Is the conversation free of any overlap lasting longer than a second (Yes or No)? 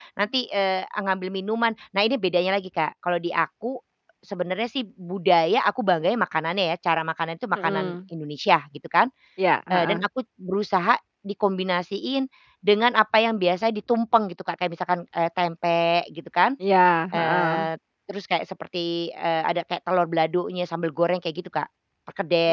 Yes